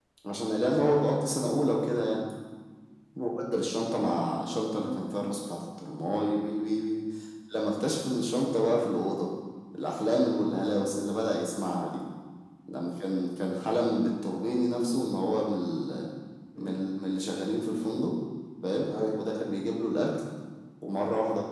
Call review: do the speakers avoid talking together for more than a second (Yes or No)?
Yes